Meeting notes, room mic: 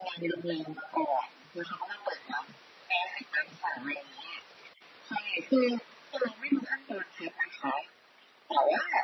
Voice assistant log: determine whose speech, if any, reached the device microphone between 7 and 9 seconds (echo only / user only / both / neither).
echo only